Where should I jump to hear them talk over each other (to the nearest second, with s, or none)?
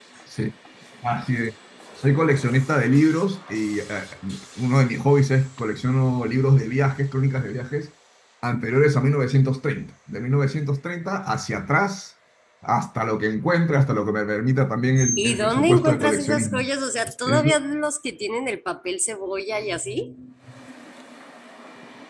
15 s